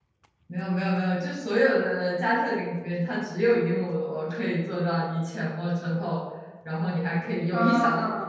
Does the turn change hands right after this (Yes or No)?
No